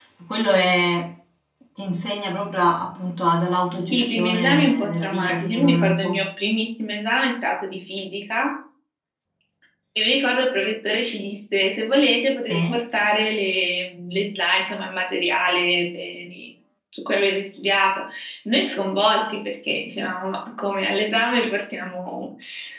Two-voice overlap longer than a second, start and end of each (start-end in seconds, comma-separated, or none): 3.9-6.3